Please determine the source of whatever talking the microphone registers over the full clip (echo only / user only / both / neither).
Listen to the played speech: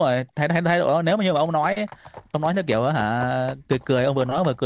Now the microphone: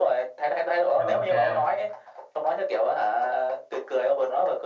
both